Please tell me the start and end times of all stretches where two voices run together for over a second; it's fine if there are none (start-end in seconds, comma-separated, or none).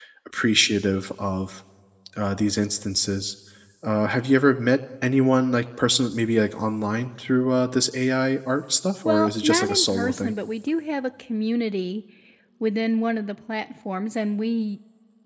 9.0-10.3